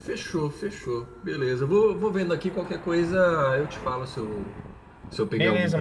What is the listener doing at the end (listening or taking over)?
taking over